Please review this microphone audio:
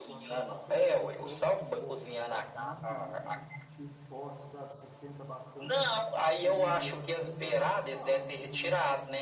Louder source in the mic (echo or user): echo